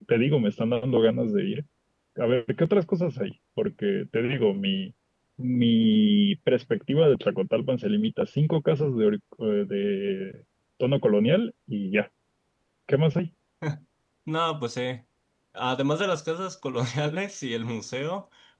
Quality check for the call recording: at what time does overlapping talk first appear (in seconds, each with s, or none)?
none